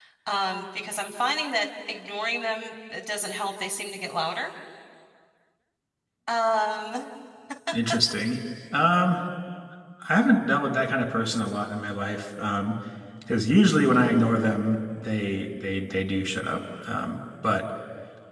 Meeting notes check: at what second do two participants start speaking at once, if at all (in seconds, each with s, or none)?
none